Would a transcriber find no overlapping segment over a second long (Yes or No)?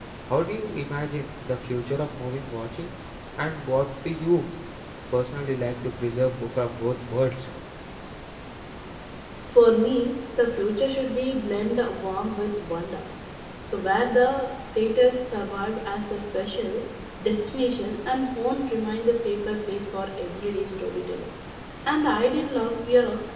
Yes